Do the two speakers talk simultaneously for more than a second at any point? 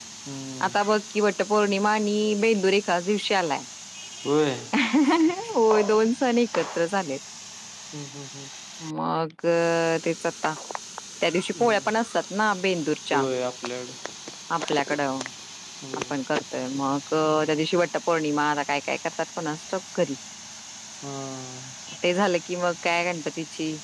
No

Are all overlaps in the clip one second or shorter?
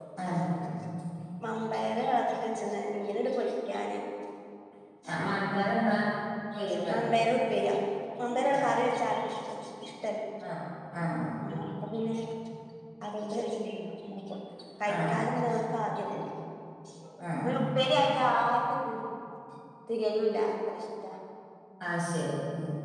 Yes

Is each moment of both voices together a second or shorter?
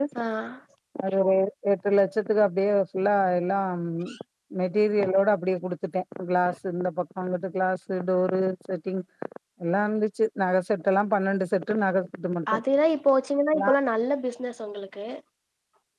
Yes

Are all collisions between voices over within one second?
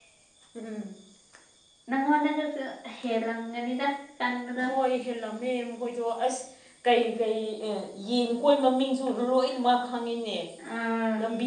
Yes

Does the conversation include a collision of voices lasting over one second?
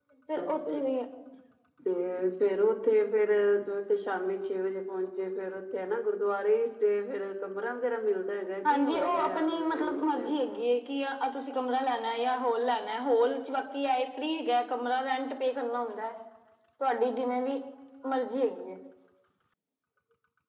Yes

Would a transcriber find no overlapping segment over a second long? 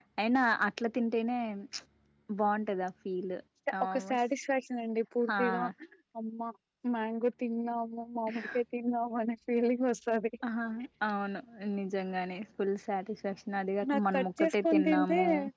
No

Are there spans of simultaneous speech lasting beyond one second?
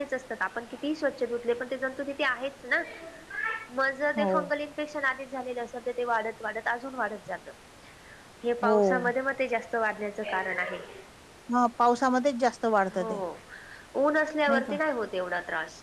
No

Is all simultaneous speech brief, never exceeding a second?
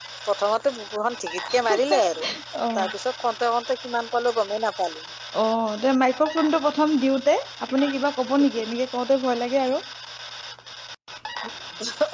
Yes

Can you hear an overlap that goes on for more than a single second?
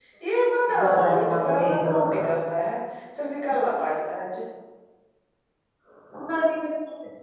Yes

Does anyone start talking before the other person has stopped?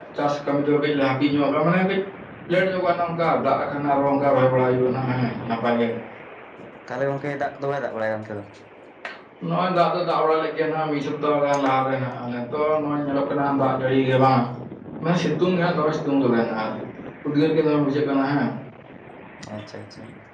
No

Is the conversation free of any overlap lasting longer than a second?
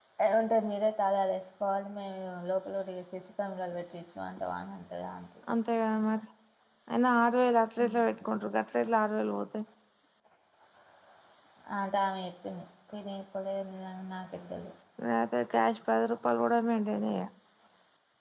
Yes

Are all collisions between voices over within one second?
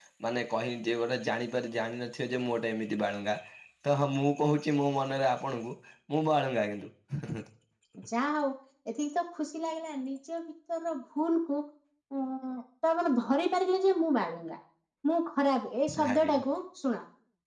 Yes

